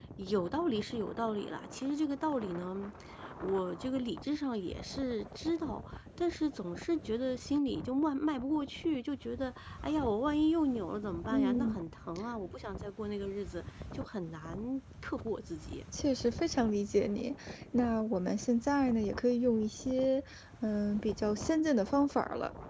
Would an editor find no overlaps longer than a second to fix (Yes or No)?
Yes